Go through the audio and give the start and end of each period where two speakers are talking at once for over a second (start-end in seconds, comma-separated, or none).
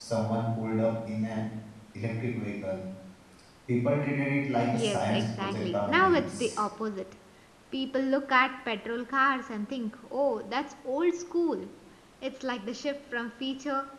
4.7-6.6